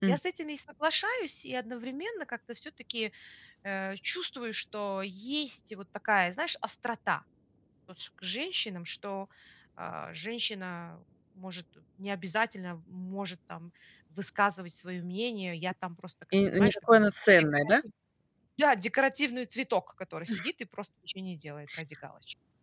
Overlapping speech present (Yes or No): Yes